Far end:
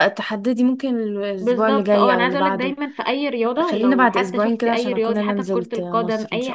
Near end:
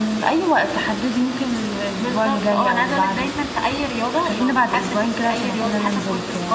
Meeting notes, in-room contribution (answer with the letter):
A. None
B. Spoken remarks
A